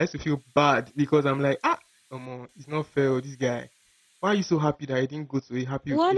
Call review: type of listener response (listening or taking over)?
taking over